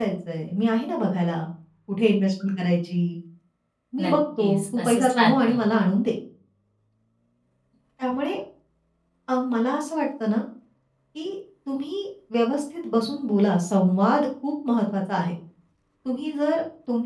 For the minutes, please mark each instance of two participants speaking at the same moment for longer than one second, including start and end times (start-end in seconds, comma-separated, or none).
4.0-5.6